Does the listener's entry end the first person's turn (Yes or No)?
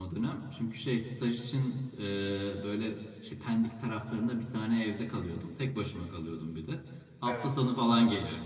No